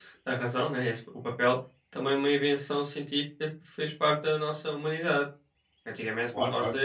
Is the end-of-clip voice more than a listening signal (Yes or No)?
No